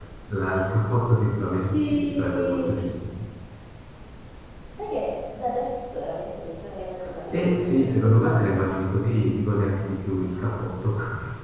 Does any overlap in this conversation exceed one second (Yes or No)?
Yes